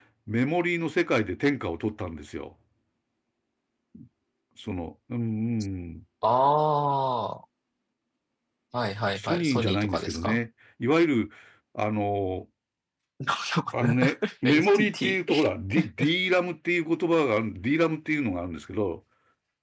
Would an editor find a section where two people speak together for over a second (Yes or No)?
Yes